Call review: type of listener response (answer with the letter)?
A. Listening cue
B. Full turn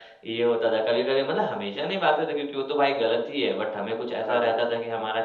A